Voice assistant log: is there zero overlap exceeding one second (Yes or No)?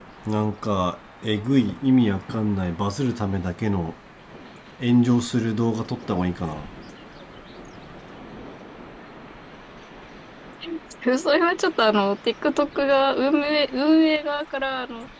Yes